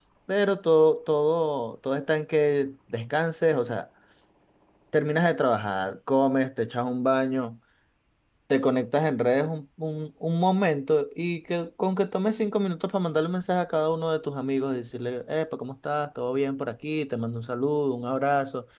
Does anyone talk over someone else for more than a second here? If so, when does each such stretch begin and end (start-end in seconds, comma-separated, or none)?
none